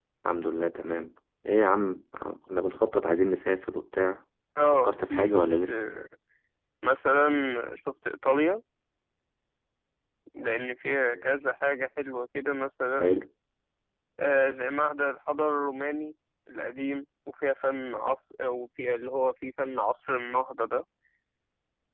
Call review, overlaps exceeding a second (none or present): present